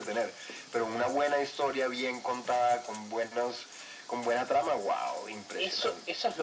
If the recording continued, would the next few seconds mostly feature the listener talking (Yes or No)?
Yes